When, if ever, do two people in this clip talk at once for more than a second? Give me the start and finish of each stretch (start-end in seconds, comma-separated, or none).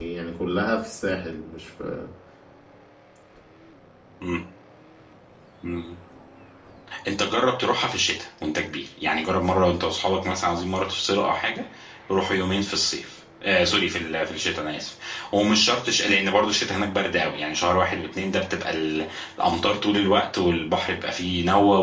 none